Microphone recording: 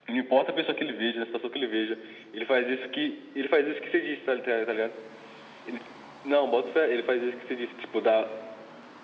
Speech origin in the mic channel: echo only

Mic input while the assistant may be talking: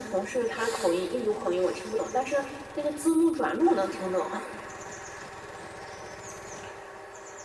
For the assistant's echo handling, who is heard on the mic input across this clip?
echo only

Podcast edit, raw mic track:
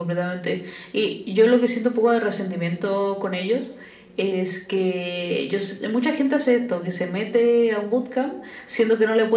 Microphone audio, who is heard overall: echo only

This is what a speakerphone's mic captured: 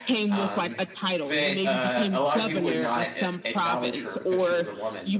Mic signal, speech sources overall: both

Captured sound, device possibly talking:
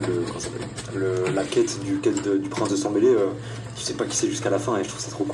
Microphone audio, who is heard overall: echo only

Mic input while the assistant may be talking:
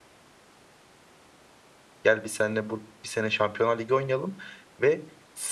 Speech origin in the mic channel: user only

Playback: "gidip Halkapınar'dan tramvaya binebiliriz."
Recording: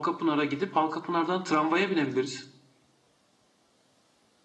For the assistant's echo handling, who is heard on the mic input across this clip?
echo only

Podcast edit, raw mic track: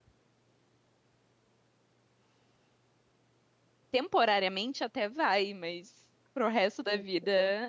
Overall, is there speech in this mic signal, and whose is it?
user only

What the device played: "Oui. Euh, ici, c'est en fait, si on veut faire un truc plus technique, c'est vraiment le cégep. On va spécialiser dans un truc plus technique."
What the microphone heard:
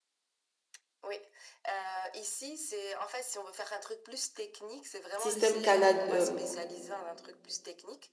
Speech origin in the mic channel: both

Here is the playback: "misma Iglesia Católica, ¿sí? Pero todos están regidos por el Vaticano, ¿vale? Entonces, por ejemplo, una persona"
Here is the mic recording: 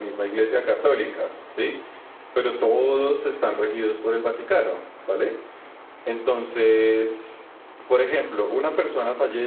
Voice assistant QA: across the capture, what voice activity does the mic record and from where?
echo only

